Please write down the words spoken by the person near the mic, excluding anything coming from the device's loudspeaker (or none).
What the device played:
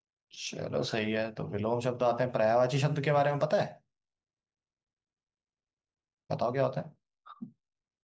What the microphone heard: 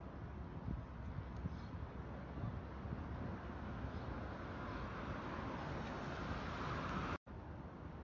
none